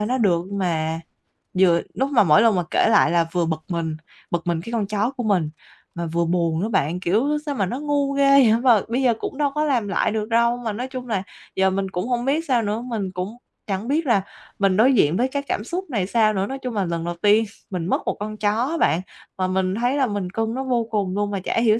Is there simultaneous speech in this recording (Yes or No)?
No